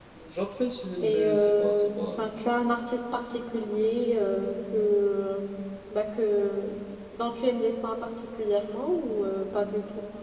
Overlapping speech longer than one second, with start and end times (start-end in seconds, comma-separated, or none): 1.0-2.4